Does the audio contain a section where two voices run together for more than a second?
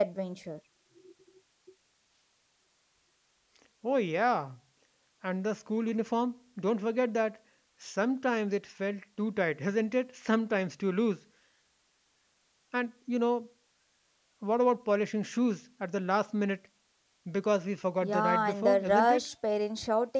Yes, from 18.0 s

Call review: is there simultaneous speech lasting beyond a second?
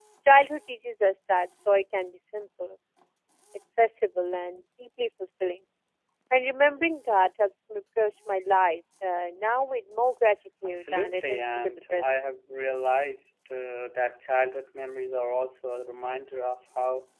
Yes, from 10.6 s

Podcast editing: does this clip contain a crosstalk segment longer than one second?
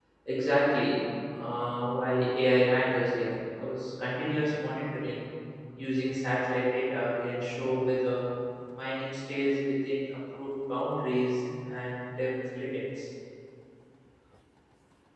No

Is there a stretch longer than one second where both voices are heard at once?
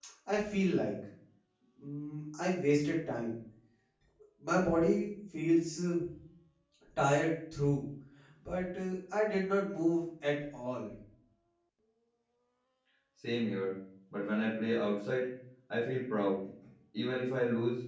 No

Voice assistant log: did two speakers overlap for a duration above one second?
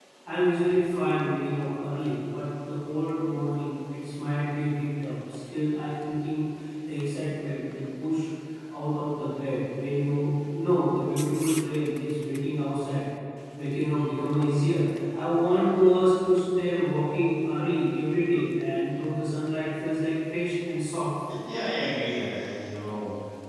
No

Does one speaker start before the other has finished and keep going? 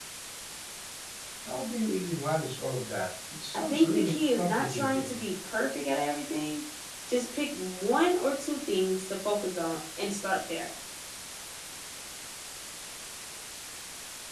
Yes, from 3.5 s

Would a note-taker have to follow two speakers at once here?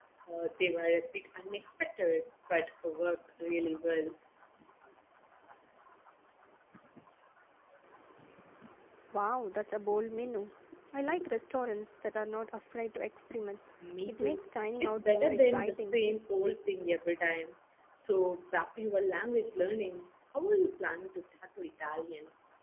Yes, from 14.1 s

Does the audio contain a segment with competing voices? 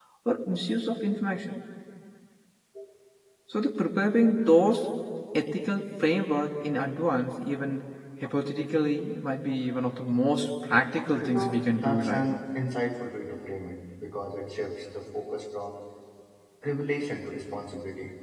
Yes, from 11.2 s

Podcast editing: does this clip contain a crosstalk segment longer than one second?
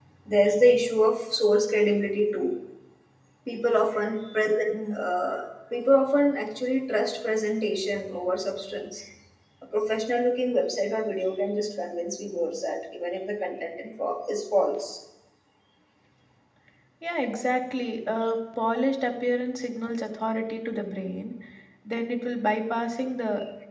No

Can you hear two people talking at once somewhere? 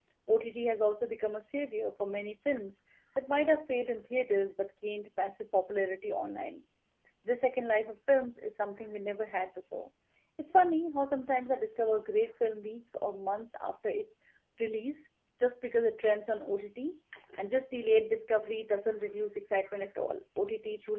No

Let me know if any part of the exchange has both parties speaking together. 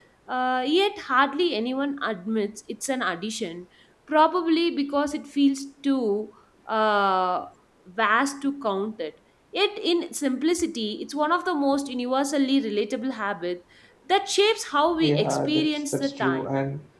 Yes, from 15.0 s

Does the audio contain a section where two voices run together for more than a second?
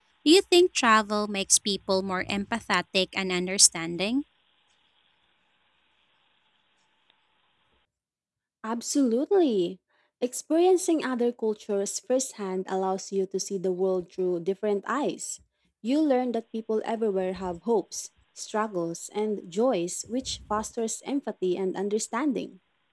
No

